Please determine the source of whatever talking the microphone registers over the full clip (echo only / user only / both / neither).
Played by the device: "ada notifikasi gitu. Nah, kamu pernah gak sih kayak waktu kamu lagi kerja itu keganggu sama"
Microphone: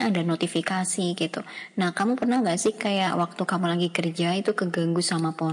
echo only